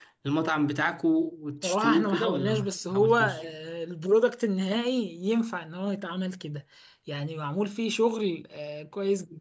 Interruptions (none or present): present